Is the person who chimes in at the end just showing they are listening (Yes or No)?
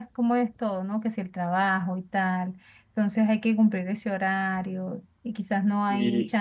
Yes